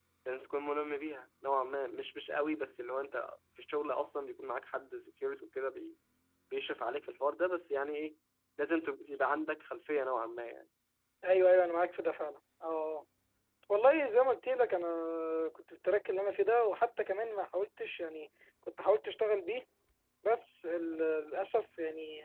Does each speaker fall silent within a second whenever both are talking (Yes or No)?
Yes